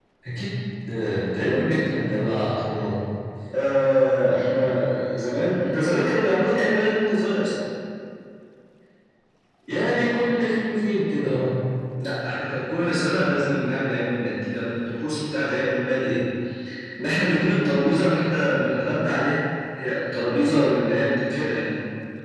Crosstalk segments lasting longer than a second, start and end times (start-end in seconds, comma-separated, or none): none